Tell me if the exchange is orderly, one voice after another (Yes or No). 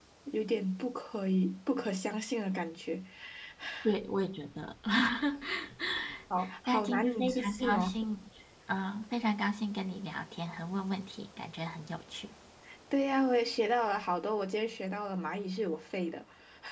No